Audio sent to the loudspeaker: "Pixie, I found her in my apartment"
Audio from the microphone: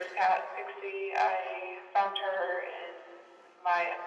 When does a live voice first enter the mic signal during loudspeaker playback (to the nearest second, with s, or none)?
none